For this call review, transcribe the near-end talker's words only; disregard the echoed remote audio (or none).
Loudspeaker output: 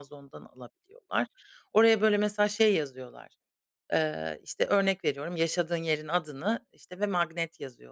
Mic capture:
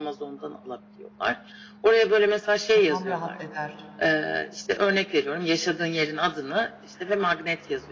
Kafam rahat eder.